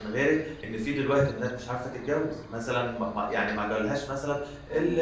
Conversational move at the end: listening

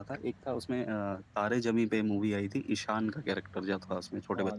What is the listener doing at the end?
taking over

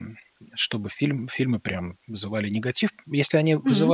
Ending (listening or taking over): listening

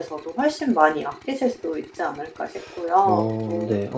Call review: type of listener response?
taking over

